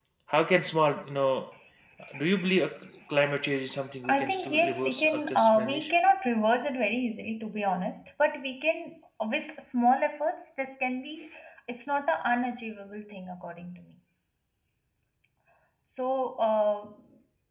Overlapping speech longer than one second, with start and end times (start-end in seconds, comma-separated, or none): 4.0-5.9